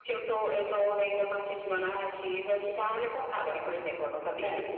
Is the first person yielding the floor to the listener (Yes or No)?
No